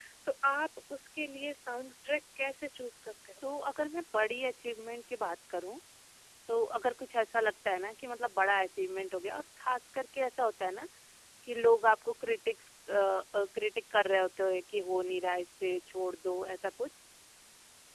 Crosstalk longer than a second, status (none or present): none